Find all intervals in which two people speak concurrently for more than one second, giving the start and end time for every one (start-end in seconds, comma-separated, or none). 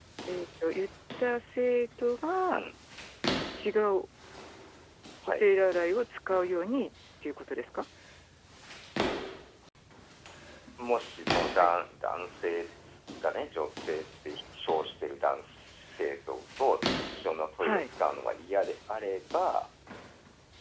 none